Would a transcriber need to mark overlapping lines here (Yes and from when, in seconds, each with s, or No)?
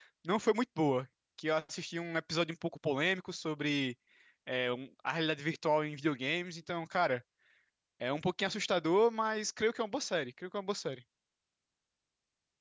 No